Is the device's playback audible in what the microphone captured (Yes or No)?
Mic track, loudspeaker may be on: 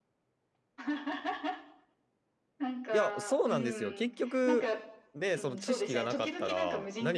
Yes